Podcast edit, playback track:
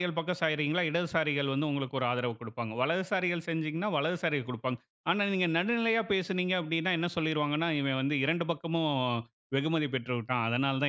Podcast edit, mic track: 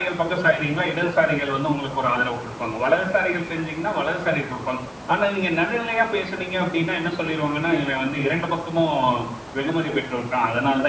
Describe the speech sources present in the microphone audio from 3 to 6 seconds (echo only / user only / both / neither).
echo only